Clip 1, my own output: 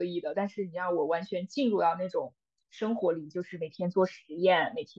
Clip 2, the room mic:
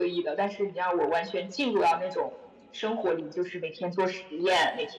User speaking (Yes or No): No